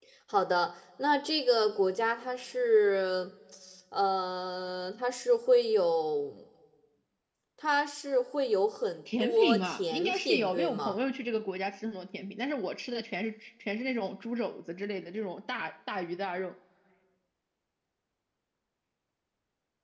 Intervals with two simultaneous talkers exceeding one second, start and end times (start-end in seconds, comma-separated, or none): 9.2-10.9